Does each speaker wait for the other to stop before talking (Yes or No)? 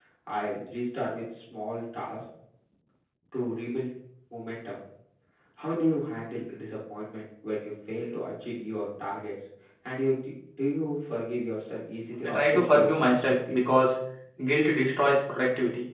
No